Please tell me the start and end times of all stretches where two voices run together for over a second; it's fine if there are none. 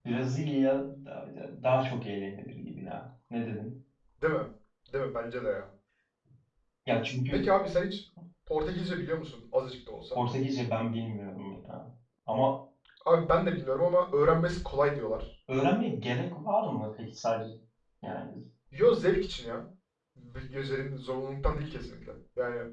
none

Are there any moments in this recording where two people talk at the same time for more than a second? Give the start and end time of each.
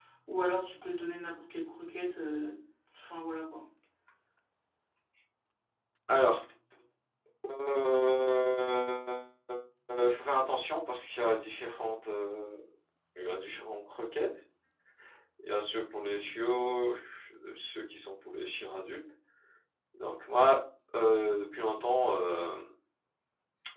none

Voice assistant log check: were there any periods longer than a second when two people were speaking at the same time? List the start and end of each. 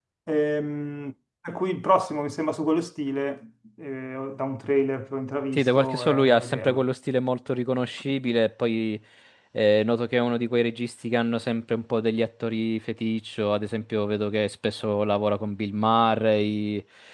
5.5-6.8

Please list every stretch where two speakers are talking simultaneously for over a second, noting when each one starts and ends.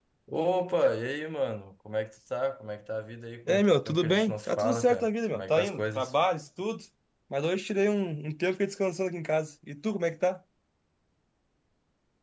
3.5-6.1

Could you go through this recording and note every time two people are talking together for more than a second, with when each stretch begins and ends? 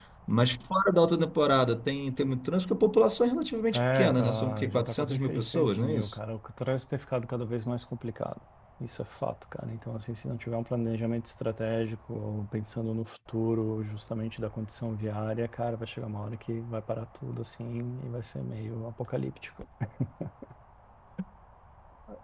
3.7-6.2

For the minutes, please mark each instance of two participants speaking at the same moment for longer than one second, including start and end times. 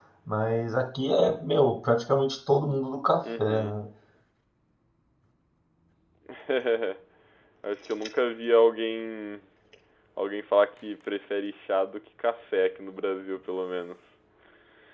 none

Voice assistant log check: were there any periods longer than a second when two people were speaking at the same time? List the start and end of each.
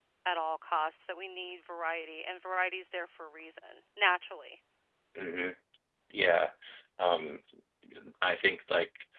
none

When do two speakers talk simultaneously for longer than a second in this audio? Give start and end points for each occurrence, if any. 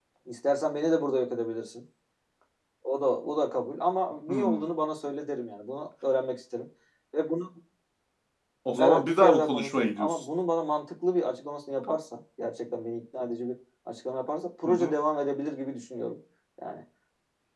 8.8-10.2

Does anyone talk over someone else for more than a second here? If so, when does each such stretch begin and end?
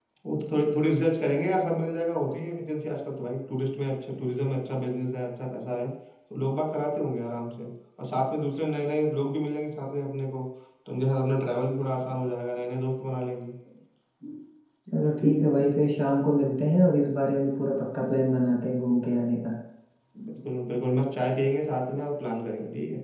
none

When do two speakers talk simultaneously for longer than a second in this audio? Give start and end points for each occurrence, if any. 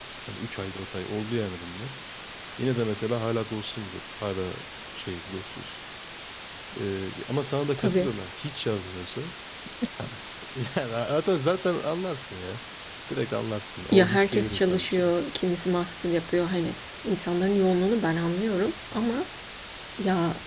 13.9-15.1

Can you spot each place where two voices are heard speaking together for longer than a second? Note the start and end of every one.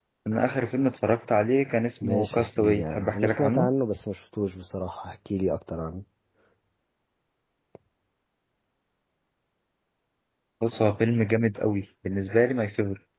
2.0-3.7

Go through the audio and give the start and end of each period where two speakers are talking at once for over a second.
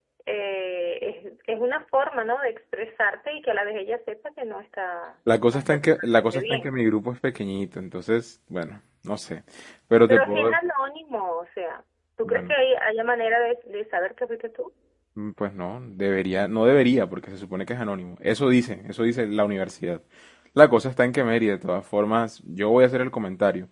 5.5-6.7

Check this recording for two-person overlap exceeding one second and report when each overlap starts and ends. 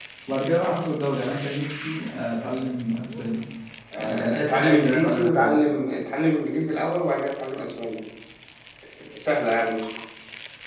4.0-5.6

